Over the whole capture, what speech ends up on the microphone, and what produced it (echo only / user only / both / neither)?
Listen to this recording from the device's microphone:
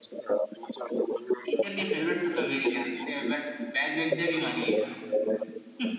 both